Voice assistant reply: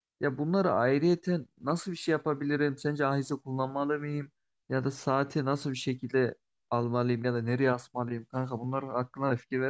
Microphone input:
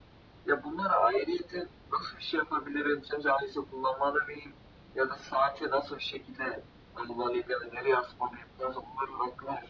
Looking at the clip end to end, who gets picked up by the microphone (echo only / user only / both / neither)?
echo only